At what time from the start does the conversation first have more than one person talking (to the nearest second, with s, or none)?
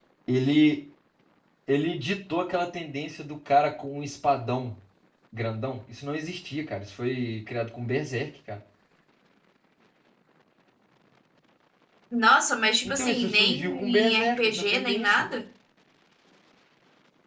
13 s